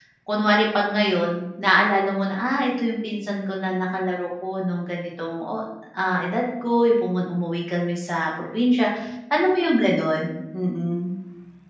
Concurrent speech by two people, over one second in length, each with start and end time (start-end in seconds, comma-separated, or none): none